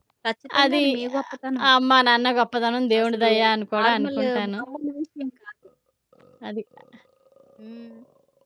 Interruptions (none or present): present